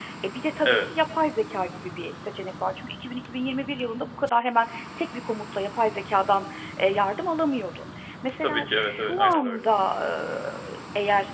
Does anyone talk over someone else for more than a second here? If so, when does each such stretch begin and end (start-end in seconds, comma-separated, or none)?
8.4-9.7